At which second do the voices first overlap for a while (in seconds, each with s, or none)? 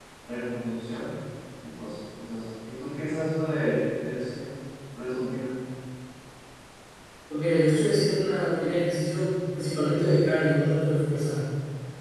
none